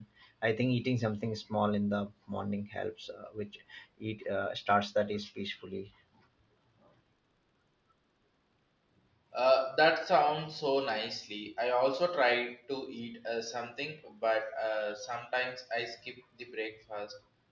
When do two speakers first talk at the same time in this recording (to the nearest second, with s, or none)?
none